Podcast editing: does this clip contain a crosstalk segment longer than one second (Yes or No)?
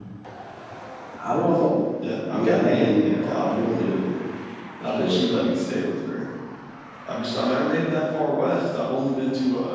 Yes